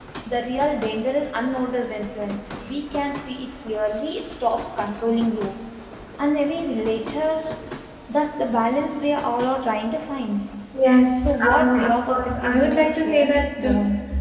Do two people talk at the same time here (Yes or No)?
Yes